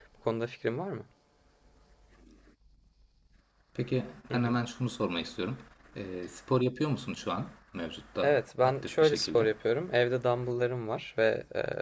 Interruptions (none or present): present